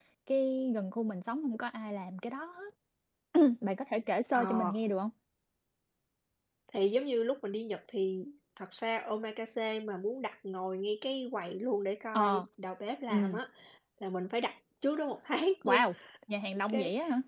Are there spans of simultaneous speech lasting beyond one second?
No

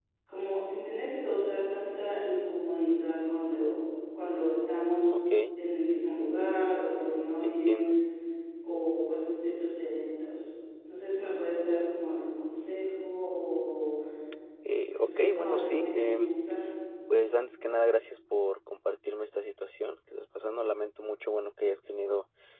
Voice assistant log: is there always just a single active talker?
No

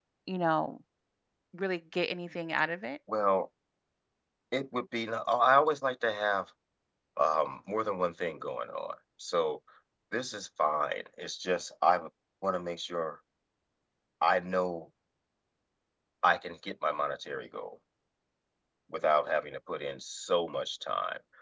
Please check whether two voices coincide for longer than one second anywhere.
No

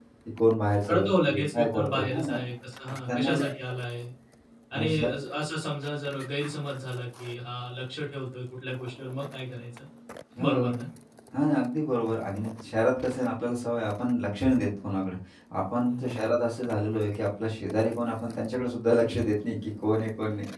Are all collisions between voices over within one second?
No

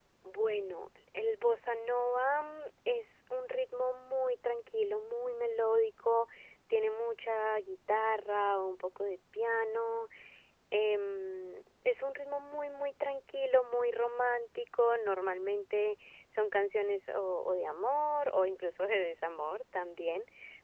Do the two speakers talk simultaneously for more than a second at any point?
No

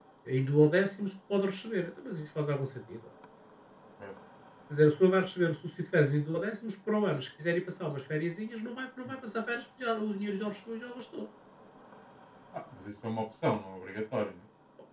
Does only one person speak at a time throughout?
Yes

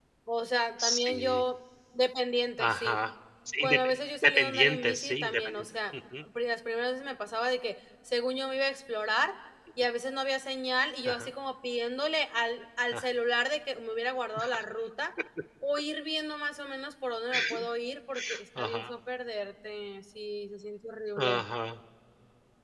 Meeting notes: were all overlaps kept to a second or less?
No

